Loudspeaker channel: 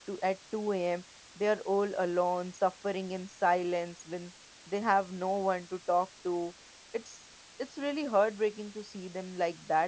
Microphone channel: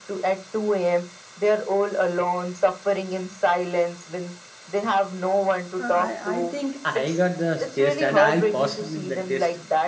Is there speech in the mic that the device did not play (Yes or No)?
Yes